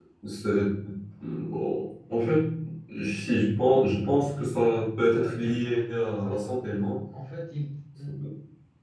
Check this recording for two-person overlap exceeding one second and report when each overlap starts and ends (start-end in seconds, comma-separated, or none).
5.1-6.7